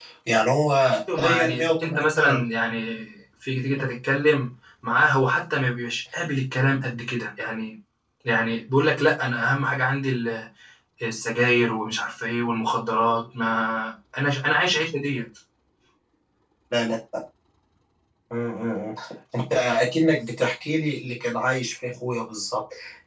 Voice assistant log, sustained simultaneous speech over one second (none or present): present